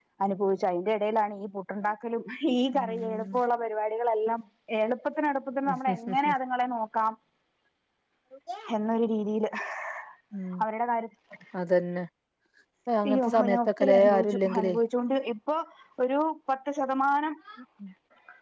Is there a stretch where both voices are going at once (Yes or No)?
Yes